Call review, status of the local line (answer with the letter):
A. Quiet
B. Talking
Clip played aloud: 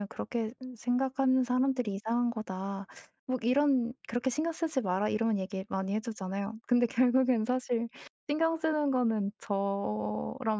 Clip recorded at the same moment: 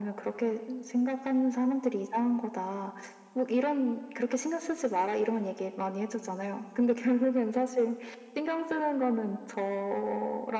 A